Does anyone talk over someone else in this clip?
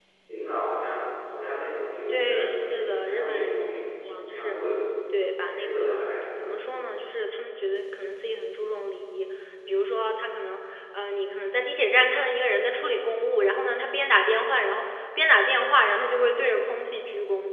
Yes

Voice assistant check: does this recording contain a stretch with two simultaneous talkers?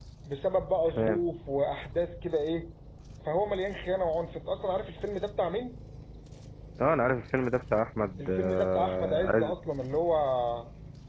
Yes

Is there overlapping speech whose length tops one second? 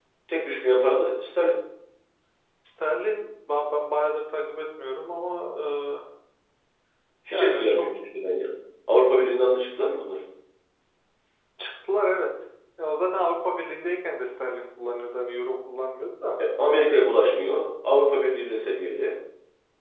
No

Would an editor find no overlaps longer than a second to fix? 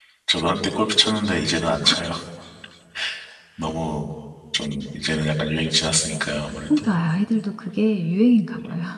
Yes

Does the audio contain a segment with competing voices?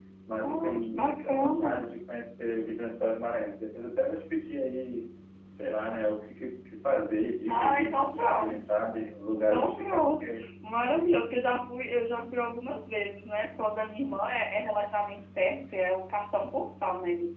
Yes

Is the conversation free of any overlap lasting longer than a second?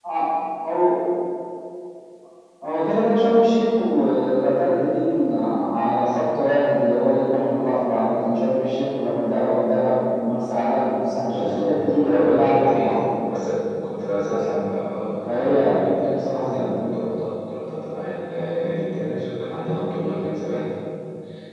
No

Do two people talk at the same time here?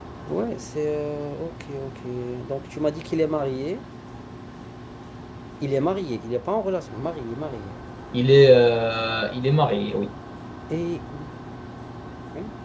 No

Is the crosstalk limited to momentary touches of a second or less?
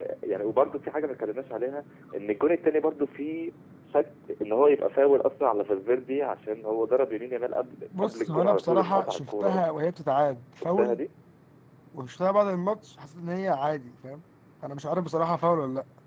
No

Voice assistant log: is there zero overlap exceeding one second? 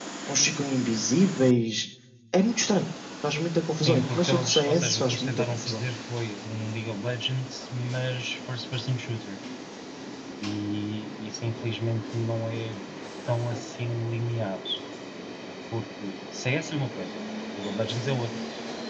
No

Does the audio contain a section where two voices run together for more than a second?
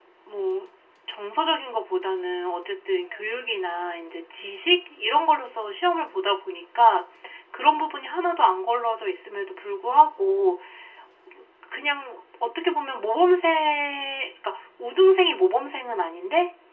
No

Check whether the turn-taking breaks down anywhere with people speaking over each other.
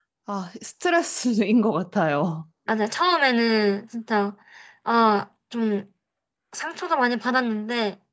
No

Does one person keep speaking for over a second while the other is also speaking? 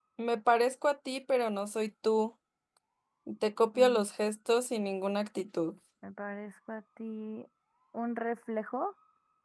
No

